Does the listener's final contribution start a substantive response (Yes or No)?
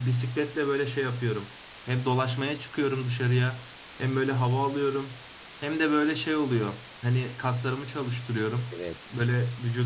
No